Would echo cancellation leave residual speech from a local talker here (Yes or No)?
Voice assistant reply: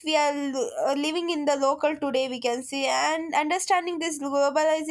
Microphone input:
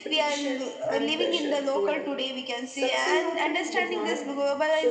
Yes